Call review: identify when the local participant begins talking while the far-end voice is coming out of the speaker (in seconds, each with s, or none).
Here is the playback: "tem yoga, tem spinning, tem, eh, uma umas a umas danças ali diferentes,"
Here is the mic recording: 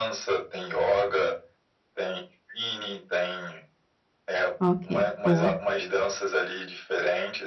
4.6 s